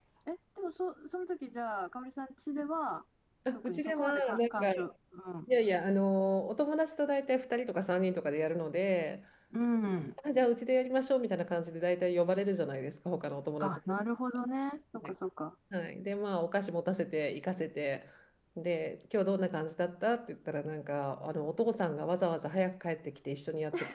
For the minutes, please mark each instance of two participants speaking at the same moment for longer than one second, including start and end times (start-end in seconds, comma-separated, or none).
3.6-4.8